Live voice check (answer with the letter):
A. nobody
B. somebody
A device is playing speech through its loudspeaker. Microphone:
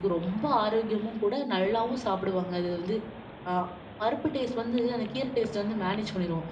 B